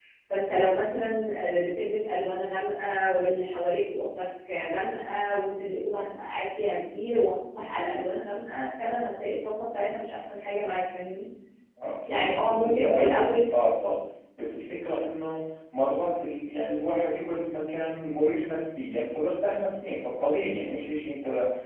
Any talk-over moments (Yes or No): Yes